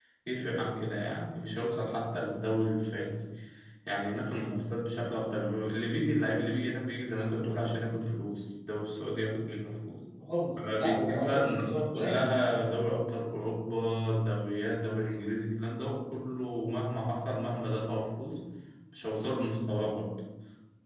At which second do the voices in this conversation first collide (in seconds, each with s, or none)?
10.6 s